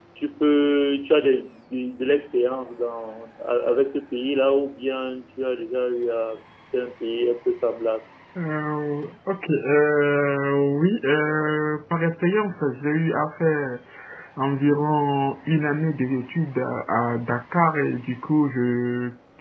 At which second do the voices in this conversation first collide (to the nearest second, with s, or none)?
none